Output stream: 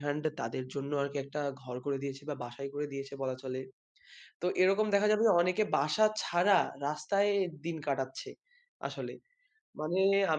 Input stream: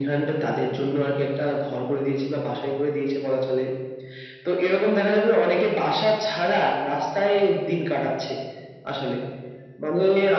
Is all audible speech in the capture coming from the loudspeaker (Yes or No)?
Yes